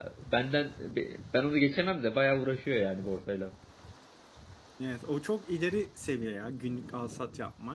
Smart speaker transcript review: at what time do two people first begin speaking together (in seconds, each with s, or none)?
none